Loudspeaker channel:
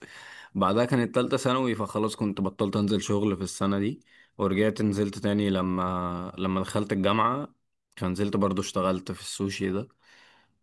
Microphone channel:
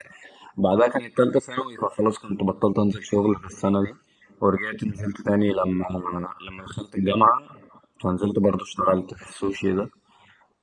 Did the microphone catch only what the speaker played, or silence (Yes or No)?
Yes